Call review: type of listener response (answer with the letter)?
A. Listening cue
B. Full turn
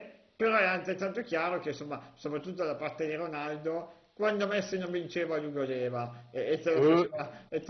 A